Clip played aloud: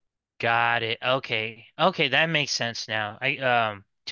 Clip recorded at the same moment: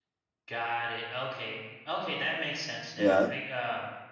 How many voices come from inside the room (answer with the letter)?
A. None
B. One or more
B